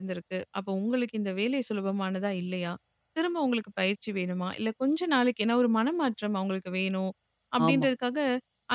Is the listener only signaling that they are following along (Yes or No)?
Yes